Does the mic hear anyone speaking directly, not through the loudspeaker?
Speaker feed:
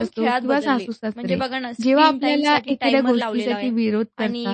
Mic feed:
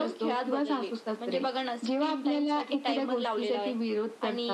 No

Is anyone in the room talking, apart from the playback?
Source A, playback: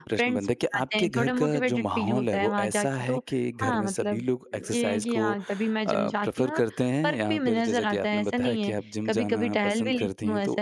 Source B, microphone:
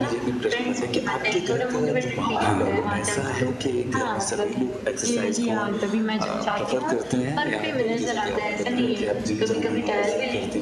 Yes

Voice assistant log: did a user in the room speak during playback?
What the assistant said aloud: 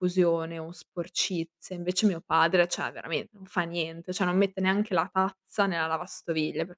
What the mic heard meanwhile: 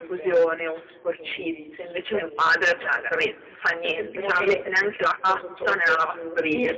Yes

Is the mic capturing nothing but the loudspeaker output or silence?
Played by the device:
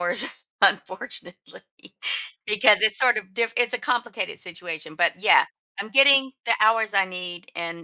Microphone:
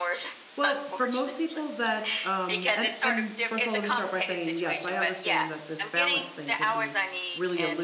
No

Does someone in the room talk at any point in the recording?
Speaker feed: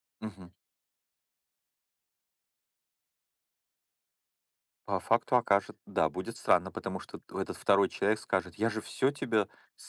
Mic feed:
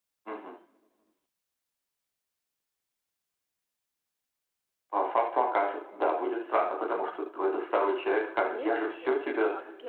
Yes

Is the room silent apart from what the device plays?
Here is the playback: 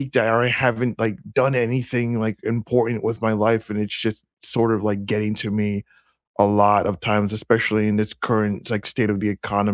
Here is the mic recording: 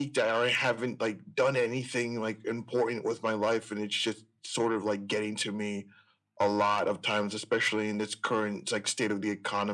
Yes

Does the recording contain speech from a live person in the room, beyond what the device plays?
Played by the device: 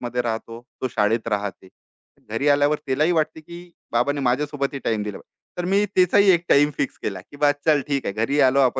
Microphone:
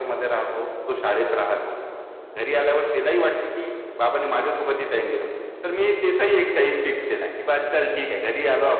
No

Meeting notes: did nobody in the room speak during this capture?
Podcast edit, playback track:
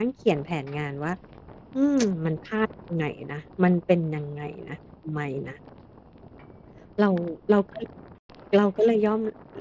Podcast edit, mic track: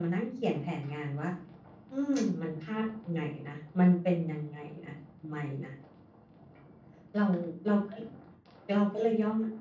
Yes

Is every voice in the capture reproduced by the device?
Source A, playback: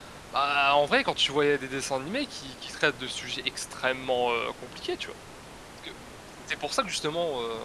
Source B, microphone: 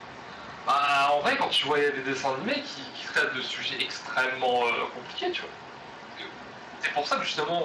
Yes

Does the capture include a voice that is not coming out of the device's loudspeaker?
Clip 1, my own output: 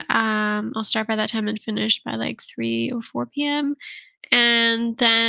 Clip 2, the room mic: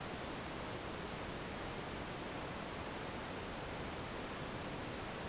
No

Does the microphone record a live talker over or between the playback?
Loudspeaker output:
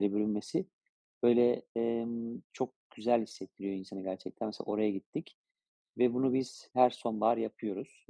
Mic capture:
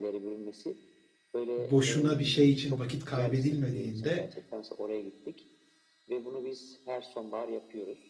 Yes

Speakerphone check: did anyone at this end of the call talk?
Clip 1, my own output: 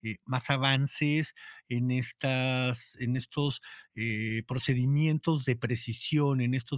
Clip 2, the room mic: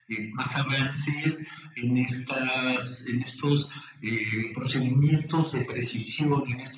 No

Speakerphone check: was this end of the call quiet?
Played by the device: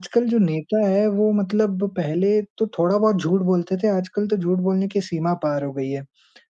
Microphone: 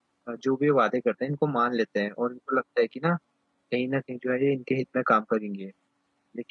No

